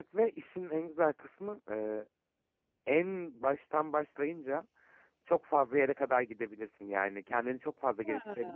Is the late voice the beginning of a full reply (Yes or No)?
No